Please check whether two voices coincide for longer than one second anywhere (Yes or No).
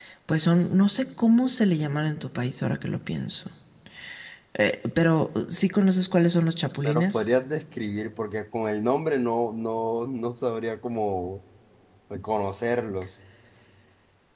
No